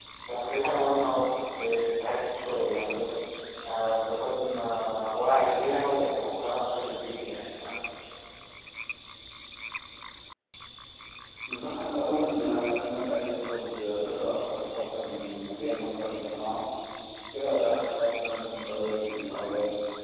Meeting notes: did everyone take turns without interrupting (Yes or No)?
Yes